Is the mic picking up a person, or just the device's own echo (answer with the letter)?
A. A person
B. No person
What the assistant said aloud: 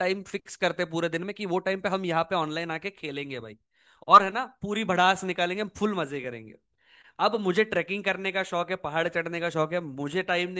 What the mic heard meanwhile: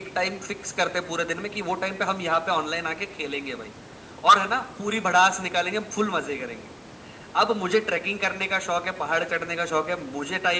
B